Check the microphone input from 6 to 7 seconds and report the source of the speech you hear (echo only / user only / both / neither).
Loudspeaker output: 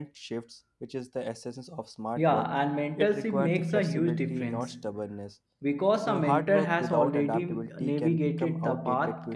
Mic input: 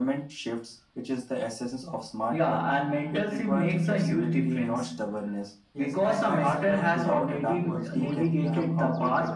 both